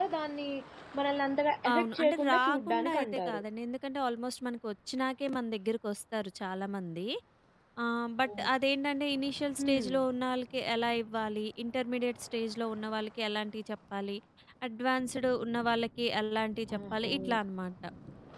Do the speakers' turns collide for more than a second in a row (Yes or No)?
Yes